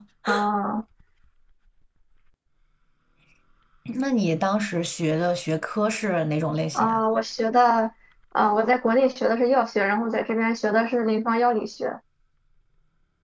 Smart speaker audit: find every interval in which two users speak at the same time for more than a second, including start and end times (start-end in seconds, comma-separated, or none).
none